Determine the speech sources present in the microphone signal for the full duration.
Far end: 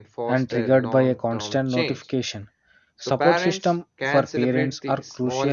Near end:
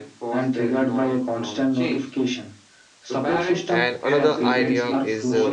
both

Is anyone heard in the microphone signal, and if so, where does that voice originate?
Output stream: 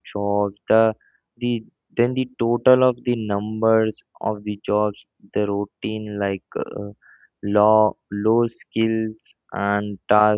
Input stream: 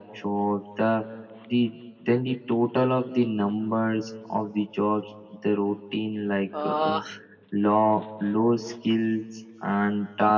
both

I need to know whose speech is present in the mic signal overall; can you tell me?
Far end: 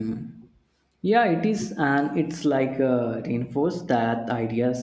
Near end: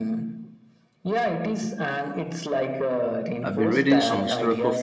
both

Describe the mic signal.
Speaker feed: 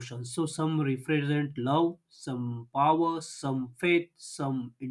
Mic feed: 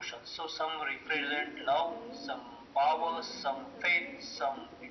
both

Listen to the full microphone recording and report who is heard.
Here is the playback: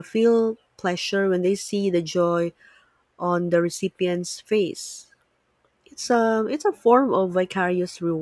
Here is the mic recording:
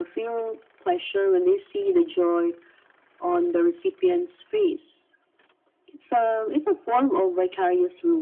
echo only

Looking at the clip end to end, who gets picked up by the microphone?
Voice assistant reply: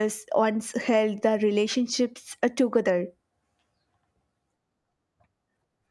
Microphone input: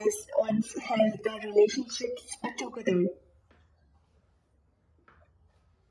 echo only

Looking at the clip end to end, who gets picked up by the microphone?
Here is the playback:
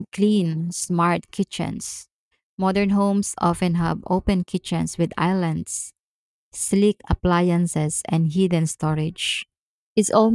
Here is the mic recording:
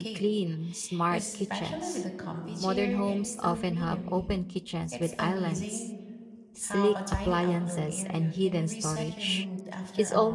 both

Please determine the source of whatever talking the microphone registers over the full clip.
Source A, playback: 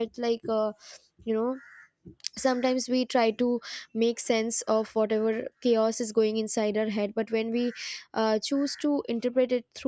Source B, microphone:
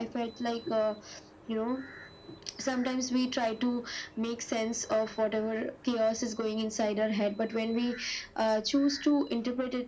echo only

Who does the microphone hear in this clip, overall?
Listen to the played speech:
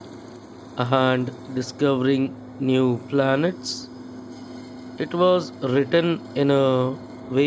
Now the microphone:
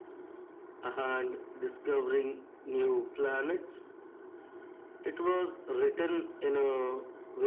echo only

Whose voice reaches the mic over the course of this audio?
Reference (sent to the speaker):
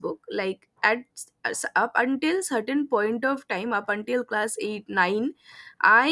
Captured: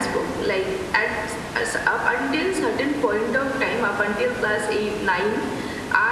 echo only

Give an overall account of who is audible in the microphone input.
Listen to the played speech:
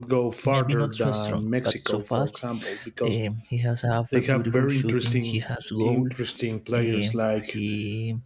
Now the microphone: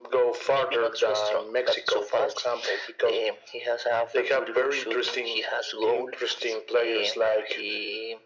echo only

